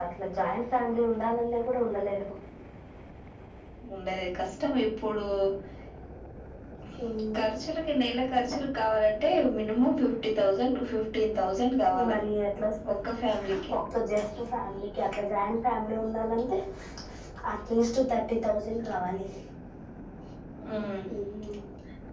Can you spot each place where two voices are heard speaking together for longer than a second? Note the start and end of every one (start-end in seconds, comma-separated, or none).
none